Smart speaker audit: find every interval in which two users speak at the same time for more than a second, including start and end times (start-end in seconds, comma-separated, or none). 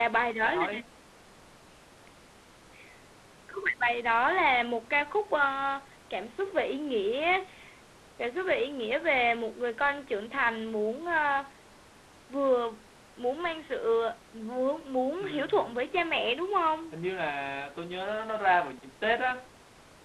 none